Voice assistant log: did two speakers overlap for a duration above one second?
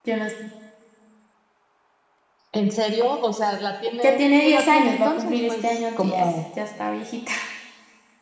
Yes, from 4.0 s

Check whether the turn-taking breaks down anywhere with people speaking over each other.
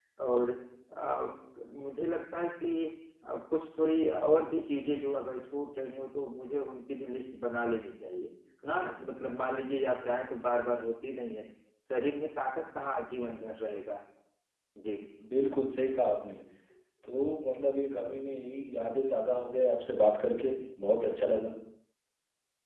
No

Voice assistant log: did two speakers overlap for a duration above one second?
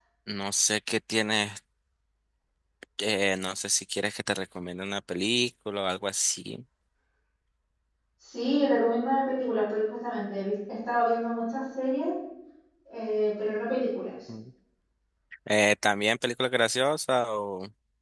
No

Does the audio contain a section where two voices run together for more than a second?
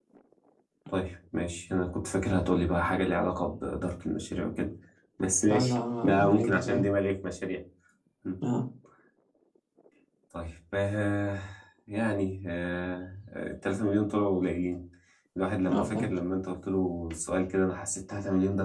Yes, from 5.5 s

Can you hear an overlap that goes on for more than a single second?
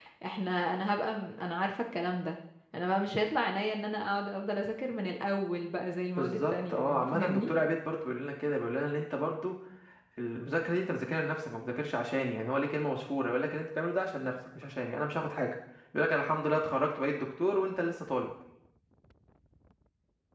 Yes, from 6.2 s

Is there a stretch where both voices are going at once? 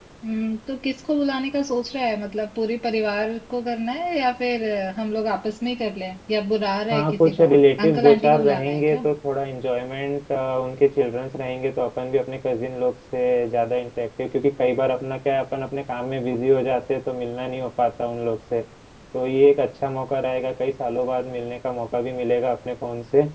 Yes, from 6.9 s

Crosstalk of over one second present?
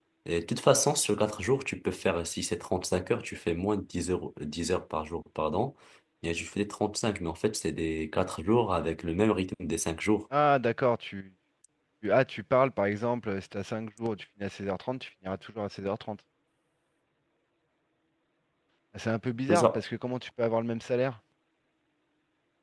No

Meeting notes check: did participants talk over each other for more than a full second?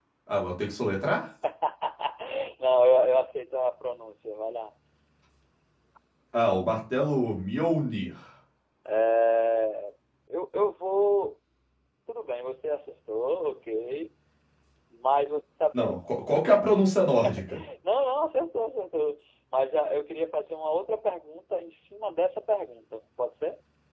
No

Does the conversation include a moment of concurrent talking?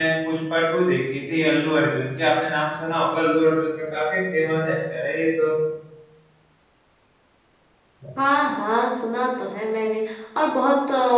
No

